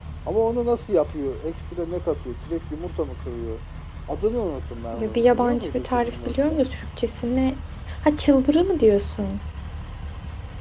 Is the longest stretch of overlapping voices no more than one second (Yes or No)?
No